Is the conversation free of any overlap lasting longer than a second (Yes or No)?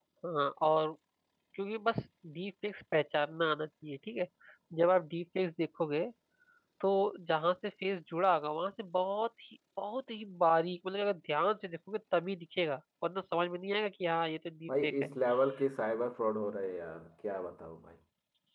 Yes